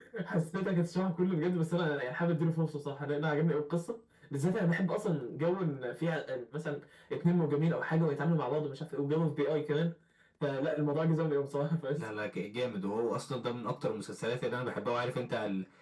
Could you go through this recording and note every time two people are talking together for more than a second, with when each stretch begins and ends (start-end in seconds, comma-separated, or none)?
none